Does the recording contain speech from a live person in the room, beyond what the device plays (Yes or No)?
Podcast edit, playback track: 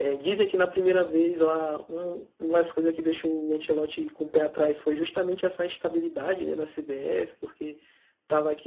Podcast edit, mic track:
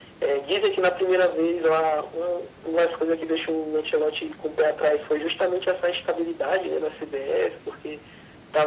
No